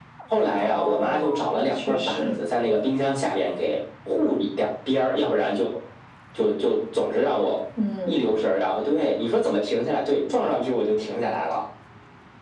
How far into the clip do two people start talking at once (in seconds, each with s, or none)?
0.6 s